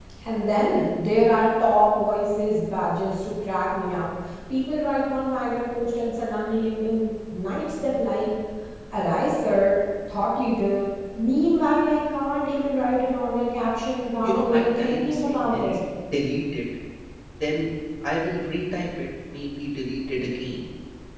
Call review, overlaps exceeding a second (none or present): present